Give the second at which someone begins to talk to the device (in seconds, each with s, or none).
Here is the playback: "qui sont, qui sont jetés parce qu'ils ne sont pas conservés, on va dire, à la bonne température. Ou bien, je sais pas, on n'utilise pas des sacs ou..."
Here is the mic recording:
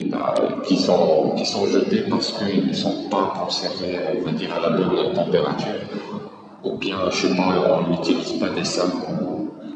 none